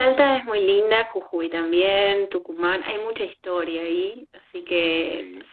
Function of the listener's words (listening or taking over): listening